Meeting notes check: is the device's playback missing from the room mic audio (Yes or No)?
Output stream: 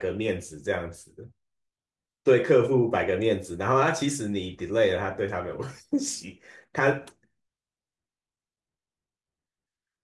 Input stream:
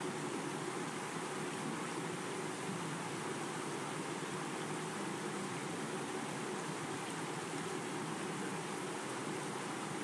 Yes